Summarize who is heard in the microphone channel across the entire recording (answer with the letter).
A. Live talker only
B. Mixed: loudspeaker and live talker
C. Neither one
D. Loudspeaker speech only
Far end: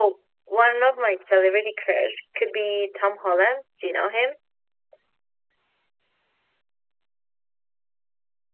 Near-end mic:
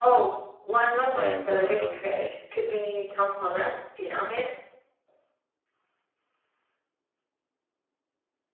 B